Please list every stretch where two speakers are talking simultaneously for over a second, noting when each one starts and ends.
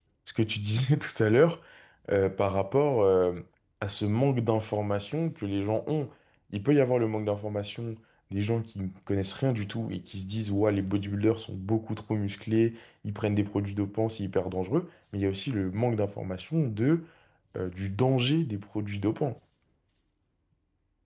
none

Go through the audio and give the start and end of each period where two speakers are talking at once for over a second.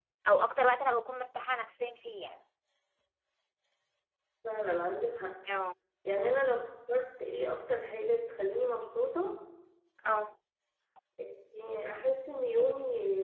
none

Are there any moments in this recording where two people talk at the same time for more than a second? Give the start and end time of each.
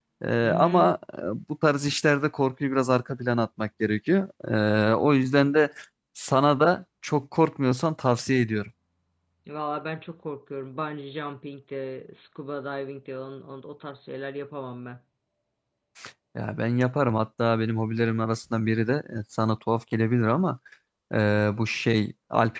none

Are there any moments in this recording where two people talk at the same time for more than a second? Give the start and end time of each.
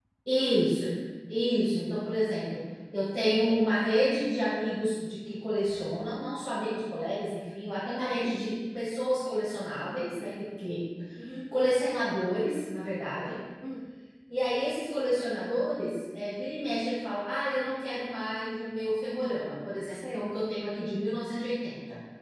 none

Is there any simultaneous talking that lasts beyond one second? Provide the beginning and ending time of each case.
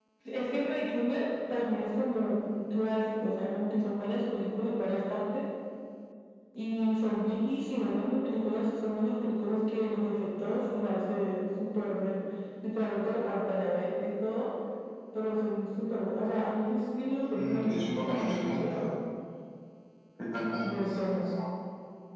17.3-18.9

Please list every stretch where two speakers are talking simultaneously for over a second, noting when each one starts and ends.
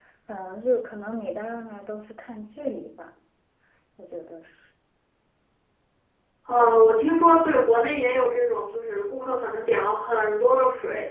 none

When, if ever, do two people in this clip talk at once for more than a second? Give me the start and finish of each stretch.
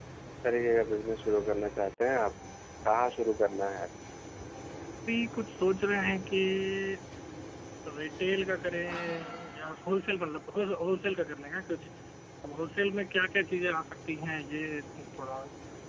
none

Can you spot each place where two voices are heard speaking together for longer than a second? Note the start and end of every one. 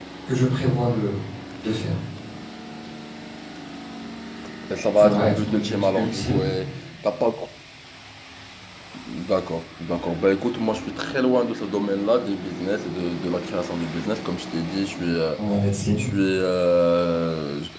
4.9-6.4

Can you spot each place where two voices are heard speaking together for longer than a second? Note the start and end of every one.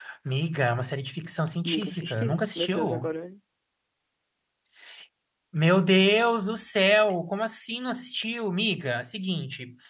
1.6-3.1

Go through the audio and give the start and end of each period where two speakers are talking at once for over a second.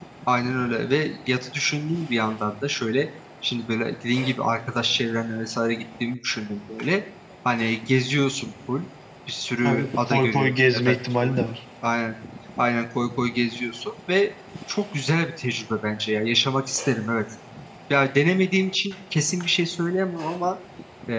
9.6-11.3

